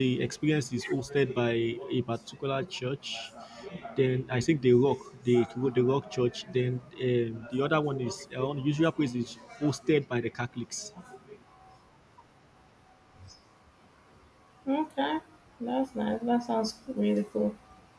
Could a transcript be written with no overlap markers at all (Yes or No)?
Yes